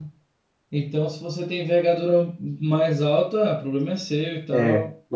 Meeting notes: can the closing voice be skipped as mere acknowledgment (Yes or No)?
No